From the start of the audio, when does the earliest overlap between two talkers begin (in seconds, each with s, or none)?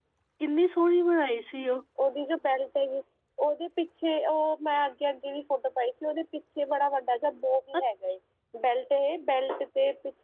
none